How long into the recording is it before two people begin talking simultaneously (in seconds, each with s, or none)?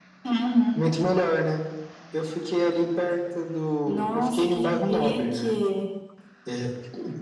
3.9 s